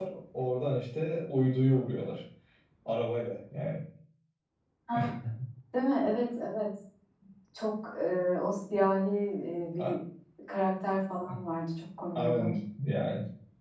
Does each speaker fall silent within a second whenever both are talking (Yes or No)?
Yes